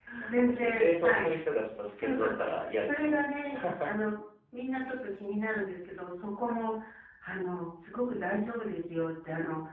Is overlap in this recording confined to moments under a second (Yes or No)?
No